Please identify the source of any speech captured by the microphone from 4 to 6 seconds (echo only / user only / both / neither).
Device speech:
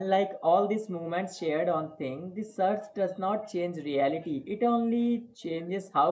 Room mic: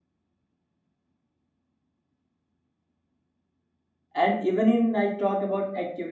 user only